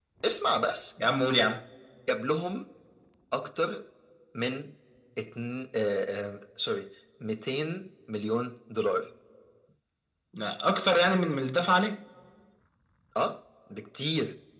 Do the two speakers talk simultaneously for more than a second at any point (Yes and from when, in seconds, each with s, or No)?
No